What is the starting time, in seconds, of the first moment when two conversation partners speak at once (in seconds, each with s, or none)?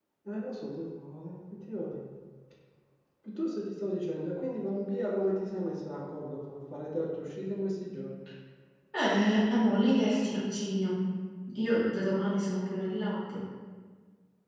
none